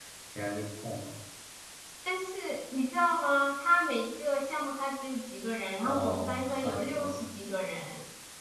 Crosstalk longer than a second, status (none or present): present